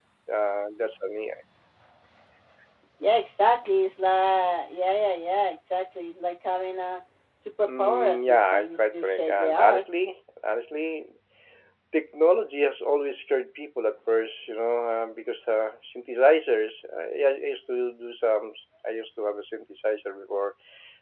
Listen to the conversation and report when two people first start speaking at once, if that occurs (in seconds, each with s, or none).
7.6 s